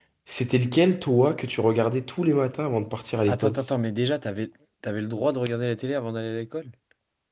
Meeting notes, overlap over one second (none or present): none